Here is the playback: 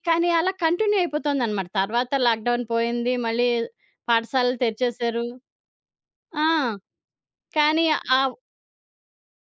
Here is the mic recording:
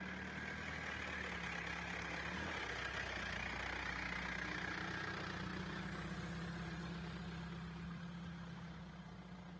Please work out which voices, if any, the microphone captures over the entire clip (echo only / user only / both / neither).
neither